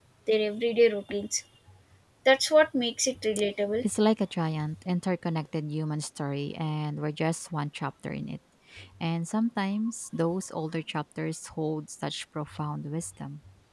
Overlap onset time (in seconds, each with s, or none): none